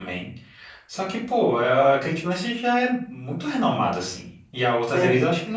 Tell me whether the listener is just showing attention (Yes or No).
Yes